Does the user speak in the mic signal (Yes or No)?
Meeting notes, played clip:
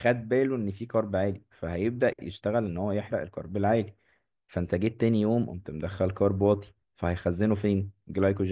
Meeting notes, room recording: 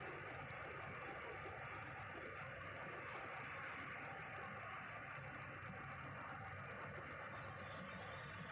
No